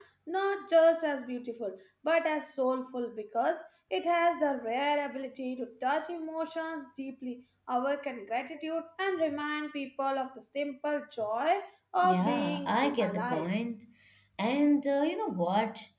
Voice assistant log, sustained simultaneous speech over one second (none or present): present